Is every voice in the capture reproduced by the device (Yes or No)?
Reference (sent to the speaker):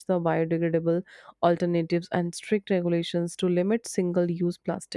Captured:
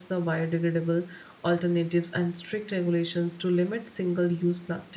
Yes